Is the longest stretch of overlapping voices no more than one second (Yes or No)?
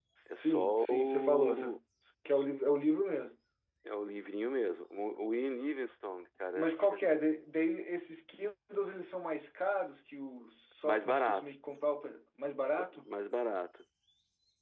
No